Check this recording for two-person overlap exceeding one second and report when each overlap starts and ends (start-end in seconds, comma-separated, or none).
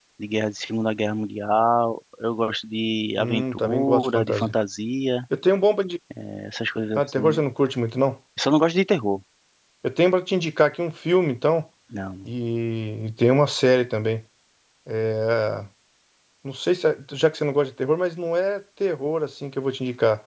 3.2-4.5